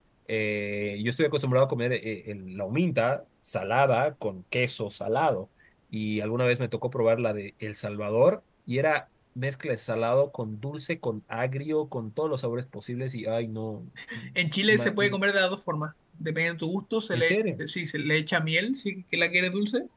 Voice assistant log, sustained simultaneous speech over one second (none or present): none